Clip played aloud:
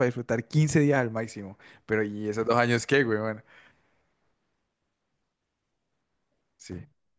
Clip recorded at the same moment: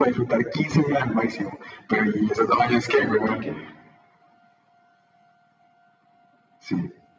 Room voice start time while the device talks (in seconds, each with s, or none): 3.0 s